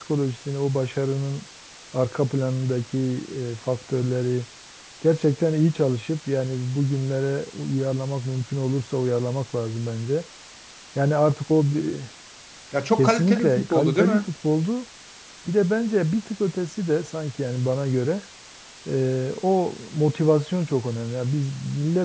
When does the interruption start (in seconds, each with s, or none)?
13.0 s